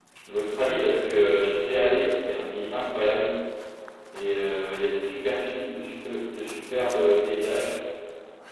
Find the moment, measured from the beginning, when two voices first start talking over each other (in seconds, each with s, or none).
0.5 s